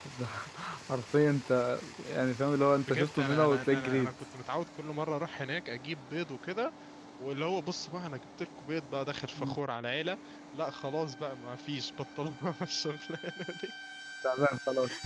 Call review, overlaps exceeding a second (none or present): present